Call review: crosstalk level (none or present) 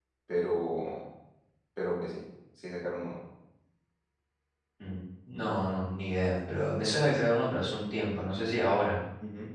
none